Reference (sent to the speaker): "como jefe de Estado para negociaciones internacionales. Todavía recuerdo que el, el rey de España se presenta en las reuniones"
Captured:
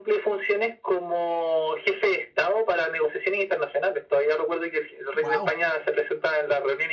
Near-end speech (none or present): present